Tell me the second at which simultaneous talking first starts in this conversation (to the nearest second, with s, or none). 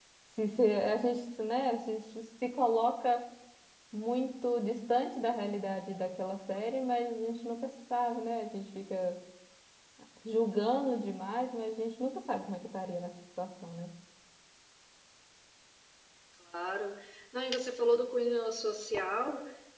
none